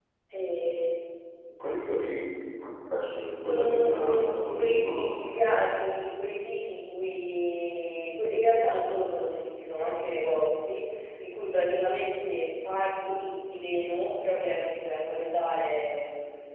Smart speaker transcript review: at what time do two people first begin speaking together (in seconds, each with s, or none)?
3.4 s